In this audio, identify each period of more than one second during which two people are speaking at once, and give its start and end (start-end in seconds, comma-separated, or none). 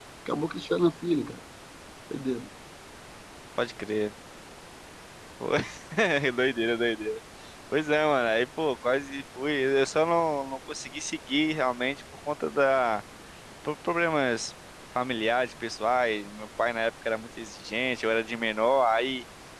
none